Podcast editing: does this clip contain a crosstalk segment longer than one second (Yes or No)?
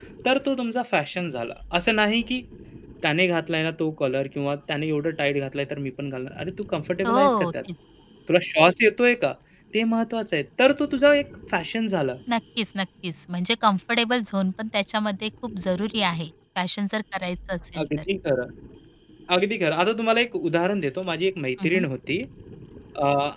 No